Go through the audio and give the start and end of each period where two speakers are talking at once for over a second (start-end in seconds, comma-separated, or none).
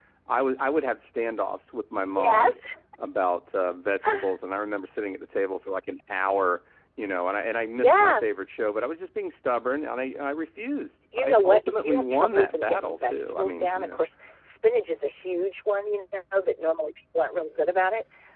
11.1-14.0